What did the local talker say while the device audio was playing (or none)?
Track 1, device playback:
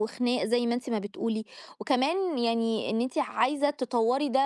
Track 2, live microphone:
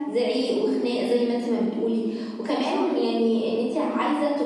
صح،